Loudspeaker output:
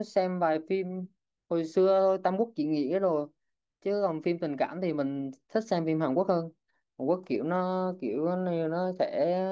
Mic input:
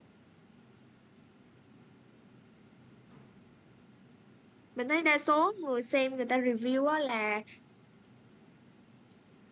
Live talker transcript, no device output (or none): Mình thấy đa số người xem người ta review á là